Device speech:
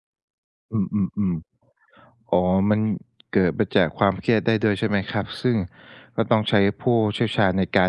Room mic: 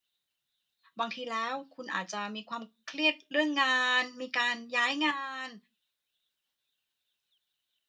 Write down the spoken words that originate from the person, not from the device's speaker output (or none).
บางทีแล้วคุณอาจจะมีความเครียดเรื่องงานมีการย้ายงาน